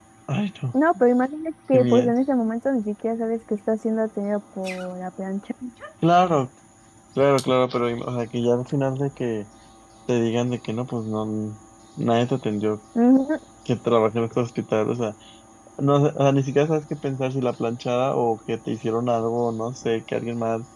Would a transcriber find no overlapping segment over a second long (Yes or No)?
Yes